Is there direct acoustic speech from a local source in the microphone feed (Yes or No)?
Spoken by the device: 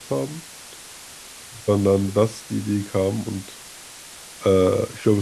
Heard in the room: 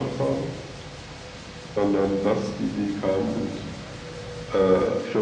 No